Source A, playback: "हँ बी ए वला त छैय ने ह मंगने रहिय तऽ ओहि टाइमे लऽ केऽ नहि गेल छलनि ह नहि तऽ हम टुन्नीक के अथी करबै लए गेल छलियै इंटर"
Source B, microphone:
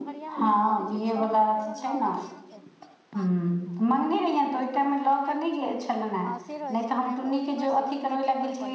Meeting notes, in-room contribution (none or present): present